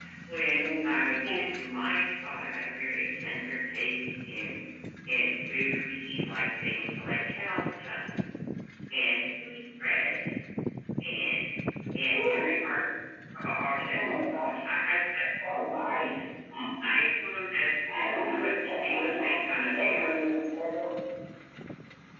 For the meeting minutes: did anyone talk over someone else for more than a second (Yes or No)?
Yes